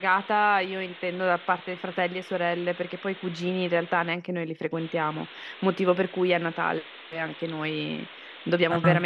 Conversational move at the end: listening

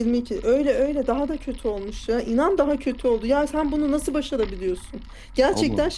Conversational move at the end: listening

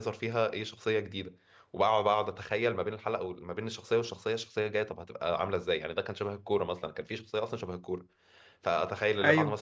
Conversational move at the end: listening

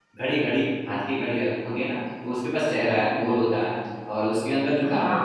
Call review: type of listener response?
listening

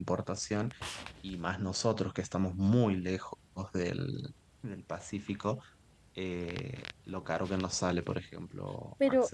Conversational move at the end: taking over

